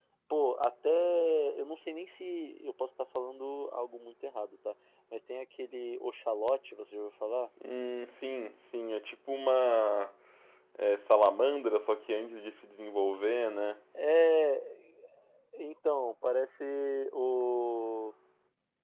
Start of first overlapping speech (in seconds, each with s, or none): none